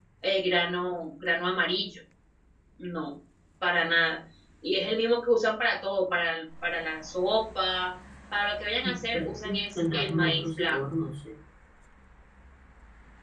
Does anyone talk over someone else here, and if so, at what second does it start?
8.8 s

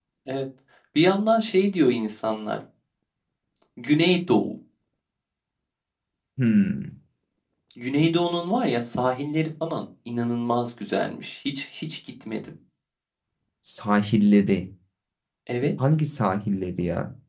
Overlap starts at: none

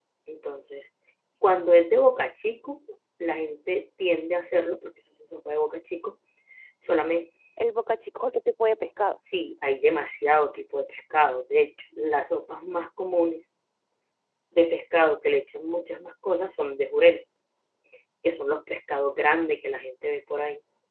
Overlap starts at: none

